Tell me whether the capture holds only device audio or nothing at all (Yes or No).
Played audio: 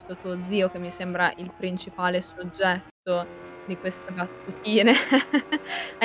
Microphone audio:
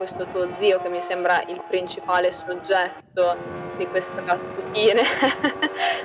Yes